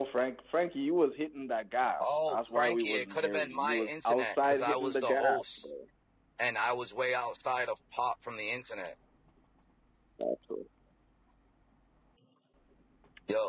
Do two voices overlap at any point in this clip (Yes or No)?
Yes